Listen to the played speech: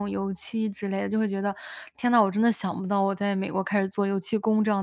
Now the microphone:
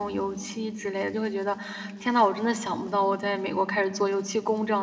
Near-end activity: none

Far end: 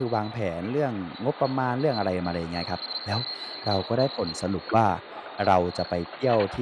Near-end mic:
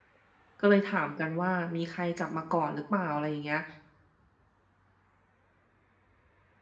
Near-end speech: present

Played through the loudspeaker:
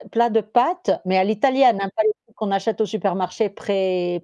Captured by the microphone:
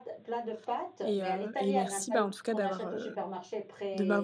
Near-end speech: present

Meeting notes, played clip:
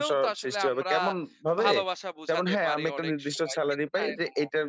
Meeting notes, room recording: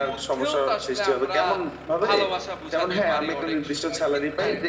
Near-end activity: none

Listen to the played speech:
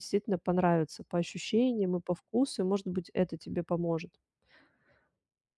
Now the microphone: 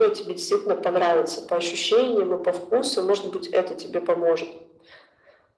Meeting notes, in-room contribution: none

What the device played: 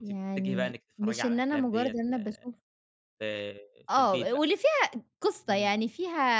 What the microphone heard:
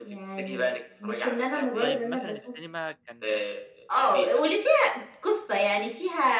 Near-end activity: present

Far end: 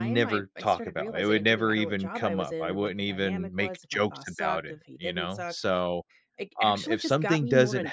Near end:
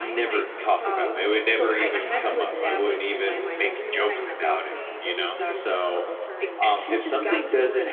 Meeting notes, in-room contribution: present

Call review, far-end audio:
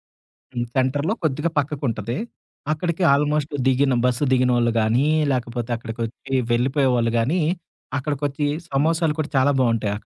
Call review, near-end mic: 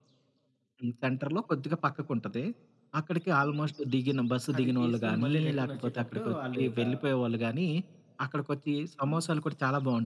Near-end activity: present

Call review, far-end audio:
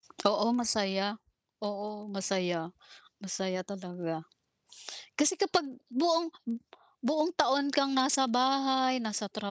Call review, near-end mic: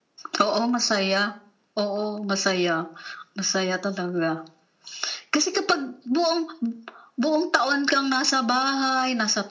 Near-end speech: none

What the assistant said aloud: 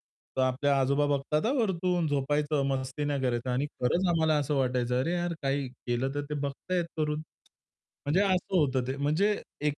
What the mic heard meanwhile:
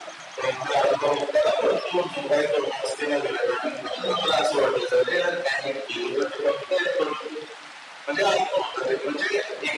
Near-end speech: none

